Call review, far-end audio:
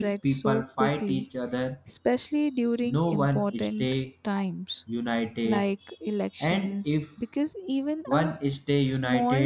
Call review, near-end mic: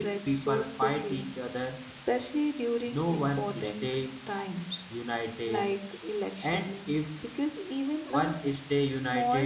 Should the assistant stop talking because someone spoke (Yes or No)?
No